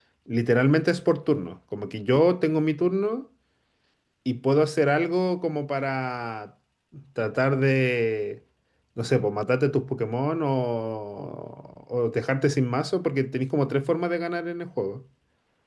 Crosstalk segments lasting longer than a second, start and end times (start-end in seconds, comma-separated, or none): none